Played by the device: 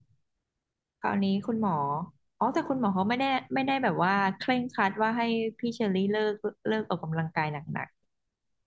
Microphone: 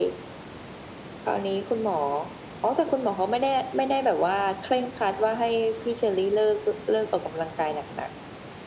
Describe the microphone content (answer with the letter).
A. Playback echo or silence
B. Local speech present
A